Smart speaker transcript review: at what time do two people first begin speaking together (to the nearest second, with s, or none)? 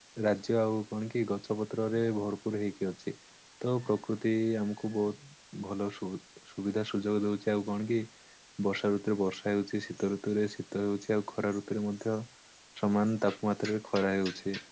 none